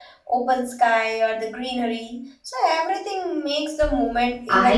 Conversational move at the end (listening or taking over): taking over